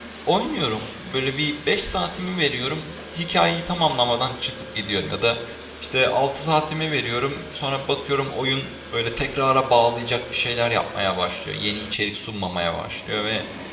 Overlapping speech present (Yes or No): No